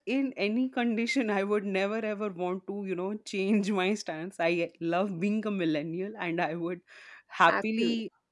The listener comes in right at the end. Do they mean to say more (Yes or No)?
No